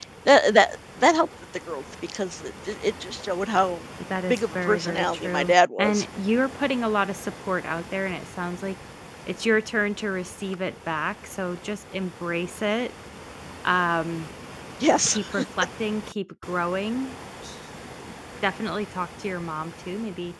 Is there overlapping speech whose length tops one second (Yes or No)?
Yes